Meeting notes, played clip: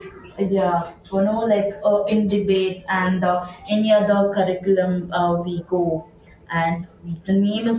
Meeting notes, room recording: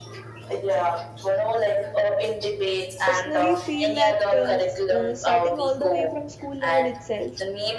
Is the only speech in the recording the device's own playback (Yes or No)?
No